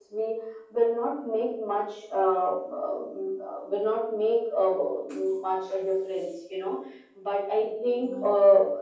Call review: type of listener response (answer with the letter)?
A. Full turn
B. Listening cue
B